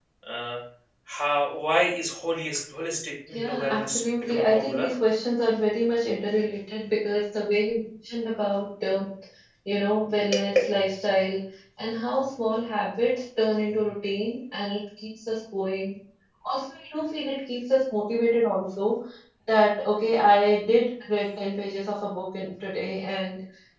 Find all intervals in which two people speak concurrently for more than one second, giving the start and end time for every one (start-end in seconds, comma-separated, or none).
3.3-4.9